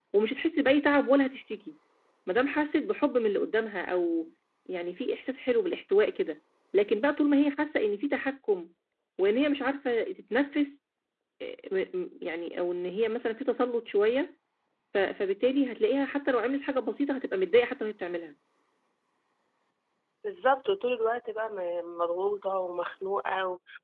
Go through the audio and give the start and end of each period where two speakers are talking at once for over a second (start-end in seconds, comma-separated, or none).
none